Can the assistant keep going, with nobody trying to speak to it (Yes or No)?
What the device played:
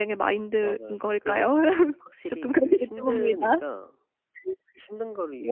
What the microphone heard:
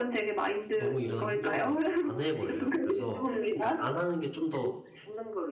No